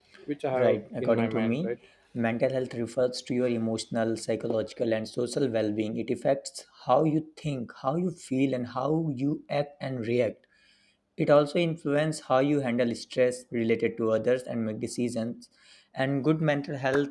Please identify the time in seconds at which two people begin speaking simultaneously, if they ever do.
0.5 s

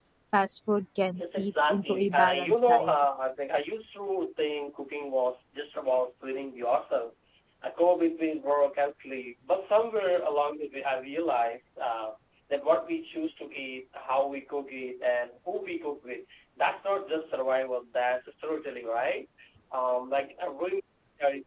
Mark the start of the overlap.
1.1 s

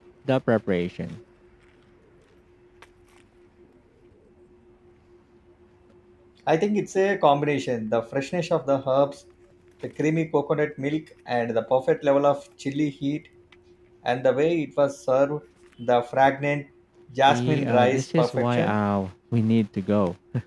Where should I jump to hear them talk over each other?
17.3 s

